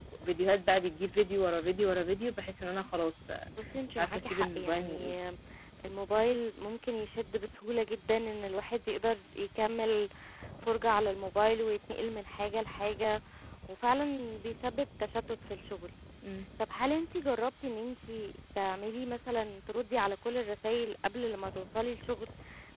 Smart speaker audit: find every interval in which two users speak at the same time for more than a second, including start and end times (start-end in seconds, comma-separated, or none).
3.9-5.1